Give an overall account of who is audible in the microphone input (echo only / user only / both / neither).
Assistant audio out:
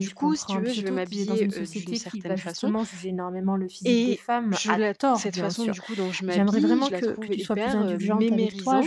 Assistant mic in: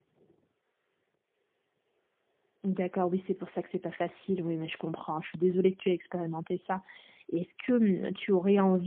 user only